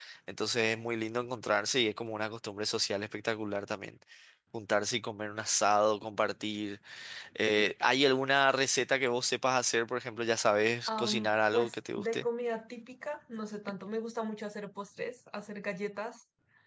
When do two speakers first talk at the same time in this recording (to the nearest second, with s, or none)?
11 s